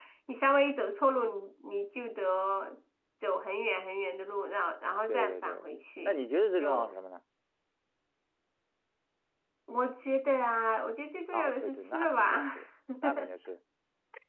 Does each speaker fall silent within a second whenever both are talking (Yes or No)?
No